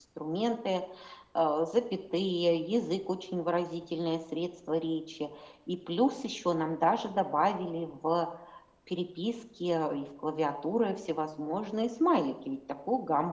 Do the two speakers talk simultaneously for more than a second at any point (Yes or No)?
No